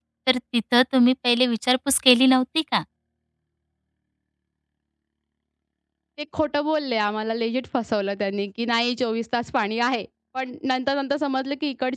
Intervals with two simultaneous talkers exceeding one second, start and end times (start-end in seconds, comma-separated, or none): none